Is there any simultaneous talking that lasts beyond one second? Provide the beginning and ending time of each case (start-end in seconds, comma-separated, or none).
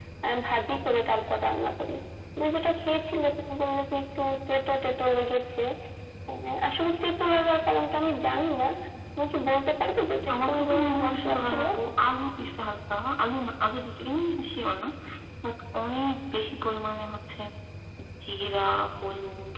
10.3-11.6